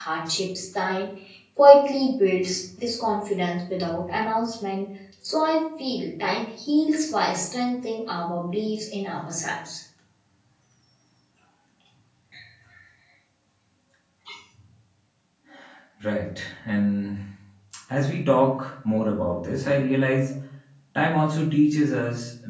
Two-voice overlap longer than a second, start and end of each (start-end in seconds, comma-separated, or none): none